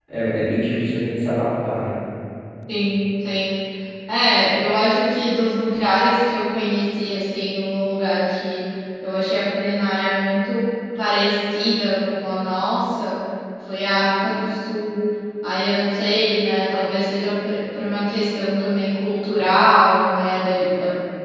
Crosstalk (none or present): none